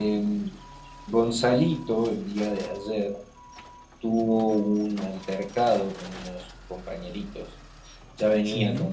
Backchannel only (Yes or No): Yes